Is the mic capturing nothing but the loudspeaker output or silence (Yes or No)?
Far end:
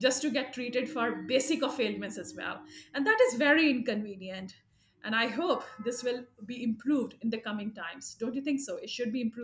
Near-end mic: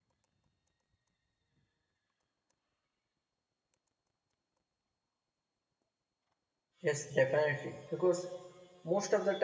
No